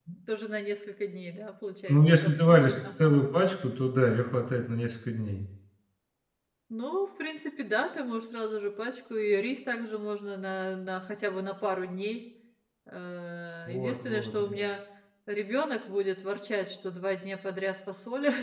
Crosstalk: present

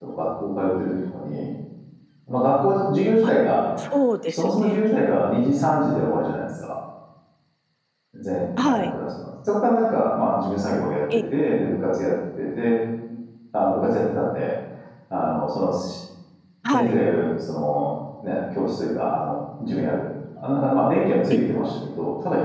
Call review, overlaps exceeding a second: none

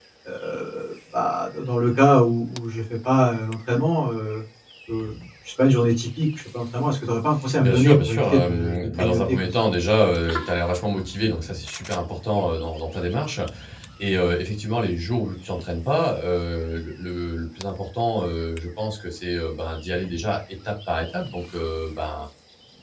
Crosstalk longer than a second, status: present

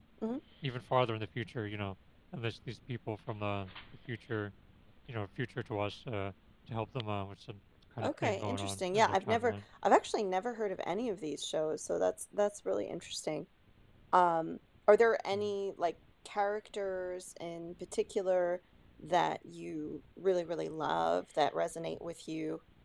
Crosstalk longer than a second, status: present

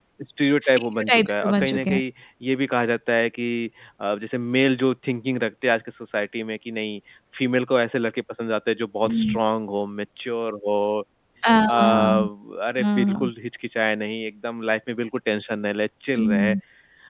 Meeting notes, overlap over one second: present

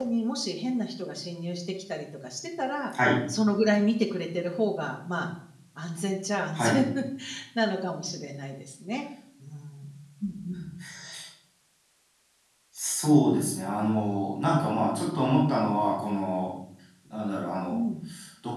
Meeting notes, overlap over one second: none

